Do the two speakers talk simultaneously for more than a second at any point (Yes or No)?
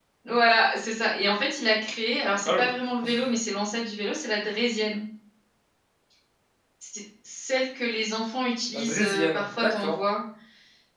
Yes